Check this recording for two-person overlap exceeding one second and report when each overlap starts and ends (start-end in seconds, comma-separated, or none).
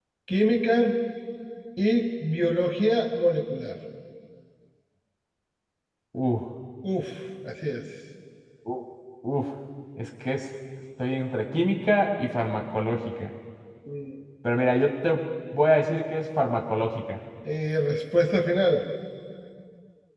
none